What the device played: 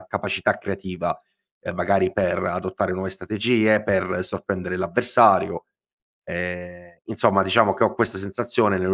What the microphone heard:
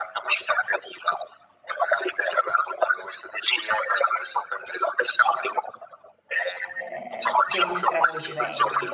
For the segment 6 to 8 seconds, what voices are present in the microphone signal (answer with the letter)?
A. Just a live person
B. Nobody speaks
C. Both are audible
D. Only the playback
C